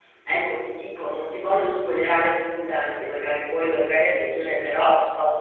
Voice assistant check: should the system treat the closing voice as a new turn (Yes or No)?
Yes